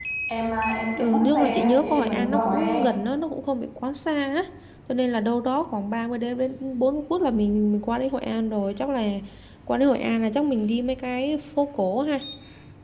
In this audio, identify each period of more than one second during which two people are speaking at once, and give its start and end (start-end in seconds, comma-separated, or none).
1.0-2.9